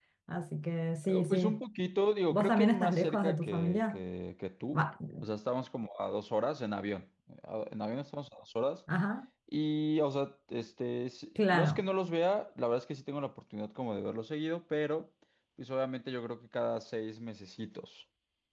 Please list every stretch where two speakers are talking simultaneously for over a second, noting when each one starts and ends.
2.3-4.0

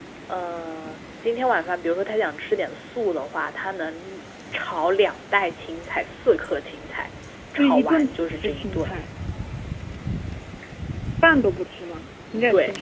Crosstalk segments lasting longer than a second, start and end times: 7.6-8.9

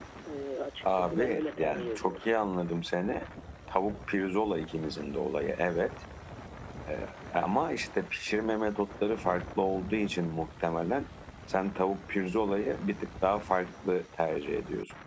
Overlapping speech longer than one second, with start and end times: 0.9-2.3

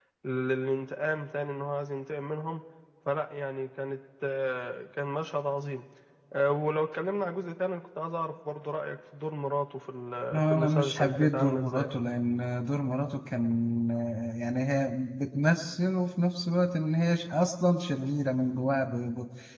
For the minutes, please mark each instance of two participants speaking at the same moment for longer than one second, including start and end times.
10.4-11.8

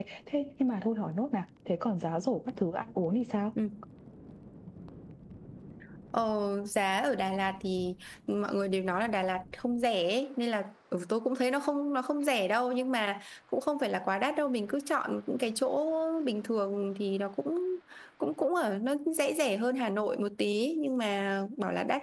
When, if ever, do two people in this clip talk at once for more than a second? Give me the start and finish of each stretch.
none

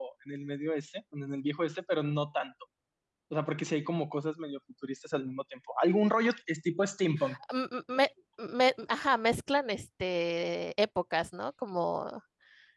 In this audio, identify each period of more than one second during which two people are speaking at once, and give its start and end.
none

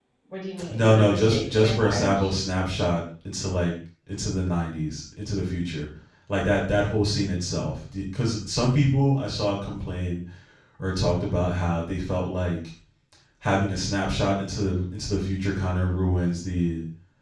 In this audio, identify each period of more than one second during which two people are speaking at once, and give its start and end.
0.7-2.3

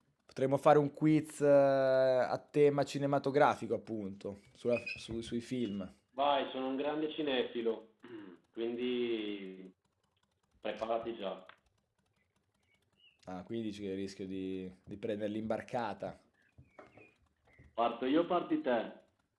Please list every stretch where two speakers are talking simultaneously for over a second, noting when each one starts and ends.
none

